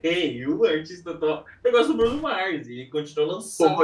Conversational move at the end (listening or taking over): listening